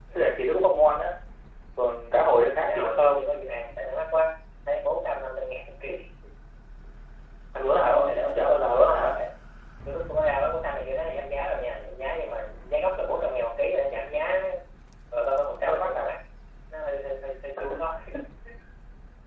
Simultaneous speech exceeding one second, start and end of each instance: 7.8-9.2

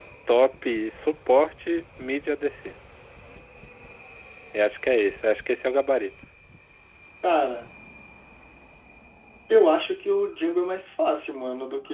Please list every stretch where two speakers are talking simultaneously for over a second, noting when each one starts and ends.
none

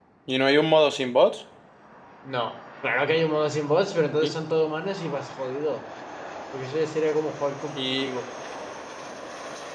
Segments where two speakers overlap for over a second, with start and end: none

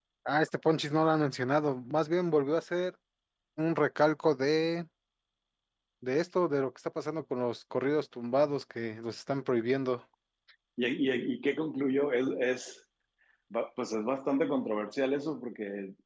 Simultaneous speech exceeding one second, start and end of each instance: none

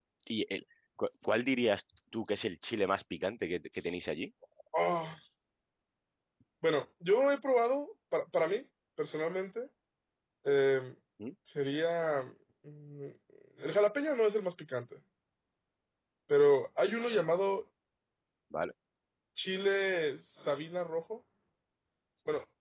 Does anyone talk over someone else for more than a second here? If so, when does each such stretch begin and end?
none

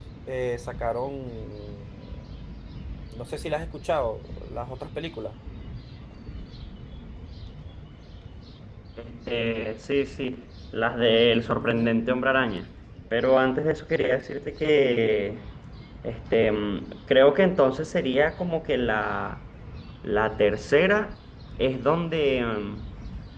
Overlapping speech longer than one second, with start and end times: none

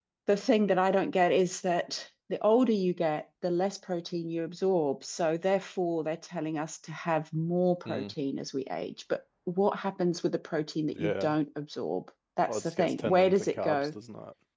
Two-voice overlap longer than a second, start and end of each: 12.5-13.9

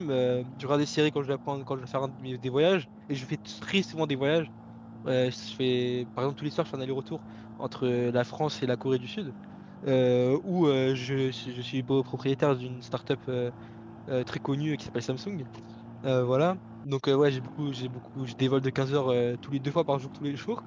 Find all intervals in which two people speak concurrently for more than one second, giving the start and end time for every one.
none

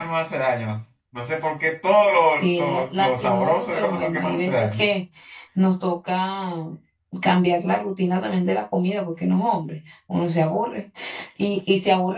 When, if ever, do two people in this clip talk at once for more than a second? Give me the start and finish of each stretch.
2.4-4.8

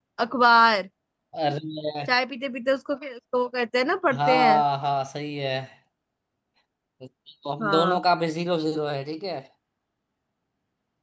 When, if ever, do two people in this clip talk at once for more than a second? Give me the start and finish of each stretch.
none

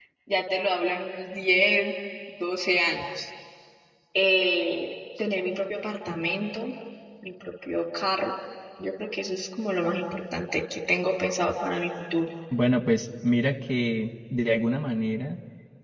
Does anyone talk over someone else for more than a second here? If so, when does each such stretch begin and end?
none

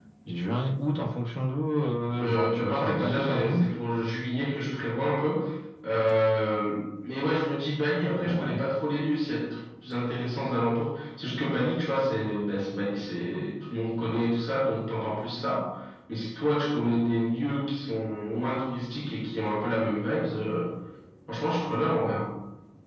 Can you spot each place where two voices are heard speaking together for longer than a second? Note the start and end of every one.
2.2-3.7

